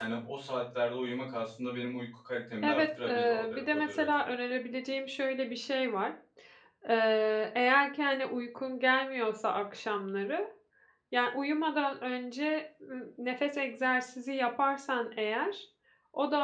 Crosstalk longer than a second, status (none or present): present